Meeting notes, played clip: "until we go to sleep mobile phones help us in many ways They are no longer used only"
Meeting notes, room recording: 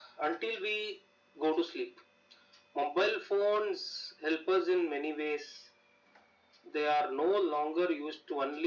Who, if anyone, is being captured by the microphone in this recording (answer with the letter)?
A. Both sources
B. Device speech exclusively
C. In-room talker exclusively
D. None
B